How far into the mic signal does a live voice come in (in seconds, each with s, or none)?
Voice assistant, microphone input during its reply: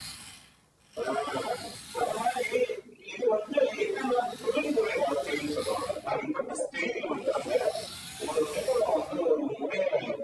none